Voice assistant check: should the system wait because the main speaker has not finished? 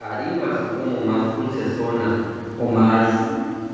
Yes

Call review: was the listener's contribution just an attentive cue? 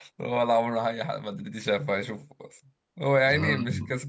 Yes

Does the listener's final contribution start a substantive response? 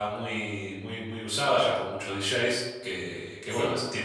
No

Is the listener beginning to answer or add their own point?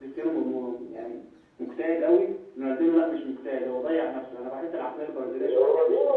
Yes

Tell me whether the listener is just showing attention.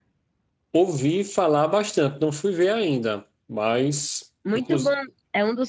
No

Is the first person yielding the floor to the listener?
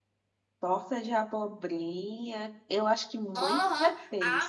Yes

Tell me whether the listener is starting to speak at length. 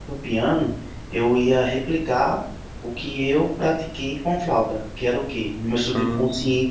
No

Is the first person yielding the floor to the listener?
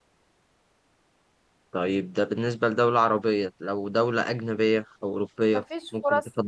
Yes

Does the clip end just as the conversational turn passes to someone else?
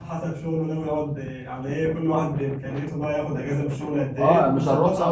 Yes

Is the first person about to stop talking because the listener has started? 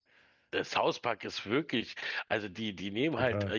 No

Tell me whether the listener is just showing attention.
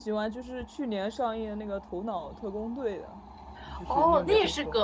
No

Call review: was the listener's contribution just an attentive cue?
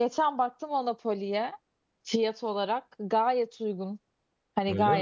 Yes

